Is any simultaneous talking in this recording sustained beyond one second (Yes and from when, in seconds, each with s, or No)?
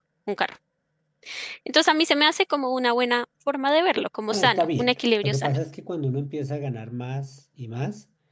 Yes, from 4.3 s